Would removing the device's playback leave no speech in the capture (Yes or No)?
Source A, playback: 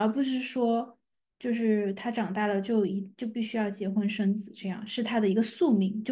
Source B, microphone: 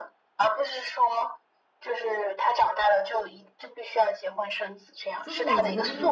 No